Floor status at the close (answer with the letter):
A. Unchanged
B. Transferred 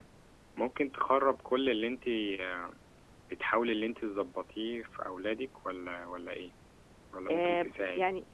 B